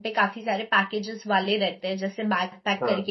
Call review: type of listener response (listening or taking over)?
listening